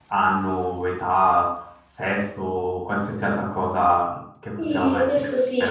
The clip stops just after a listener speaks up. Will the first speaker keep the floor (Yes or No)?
No